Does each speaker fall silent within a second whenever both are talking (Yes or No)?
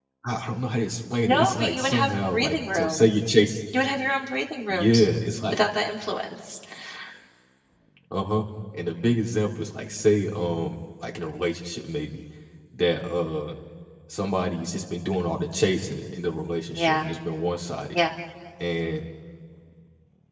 No